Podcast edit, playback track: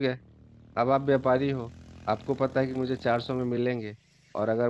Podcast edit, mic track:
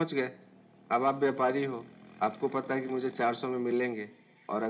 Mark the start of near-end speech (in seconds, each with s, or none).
none